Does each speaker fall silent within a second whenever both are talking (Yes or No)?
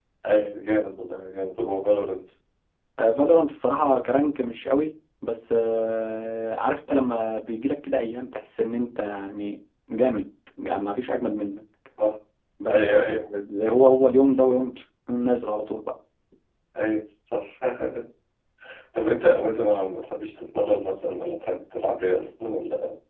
Yes